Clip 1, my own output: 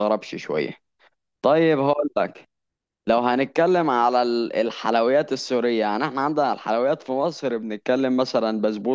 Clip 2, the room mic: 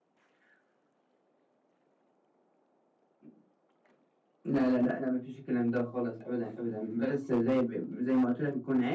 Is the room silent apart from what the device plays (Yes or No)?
No